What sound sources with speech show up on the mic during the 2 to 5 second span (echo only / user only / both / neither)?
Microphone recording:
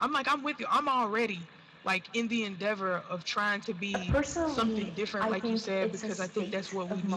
both